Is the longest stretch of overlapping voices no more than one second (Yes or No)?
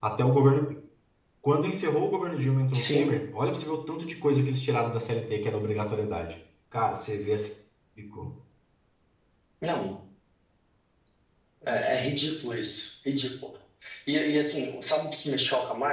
Yes